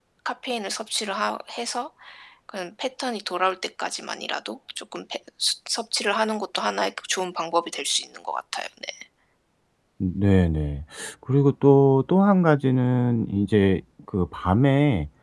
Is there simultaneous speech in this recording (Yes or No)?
No